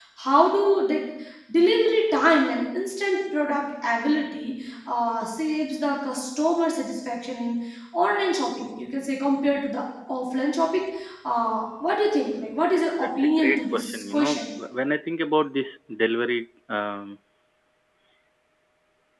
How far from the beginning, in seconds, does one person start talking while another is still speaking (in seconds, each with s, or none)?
12.7 s